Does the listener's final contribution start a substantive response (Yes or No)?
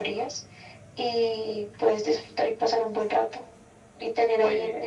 No